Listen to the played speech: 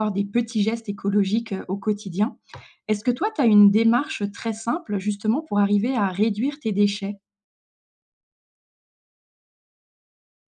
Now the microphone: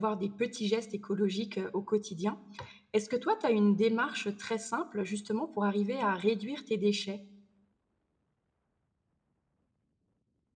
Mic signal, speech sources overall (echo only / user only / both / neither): echo only